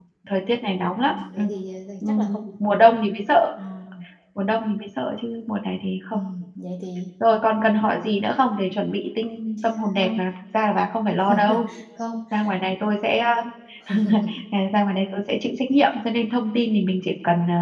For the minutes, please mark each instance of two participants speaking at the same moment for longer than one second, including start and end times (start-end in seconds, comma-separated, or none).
none